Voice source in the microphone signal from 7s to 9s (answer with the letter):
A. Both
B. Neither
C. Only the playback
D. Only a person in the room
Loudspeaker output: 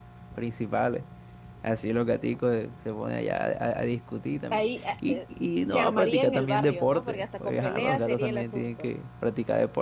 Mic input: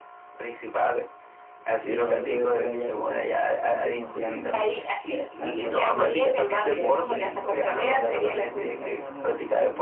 A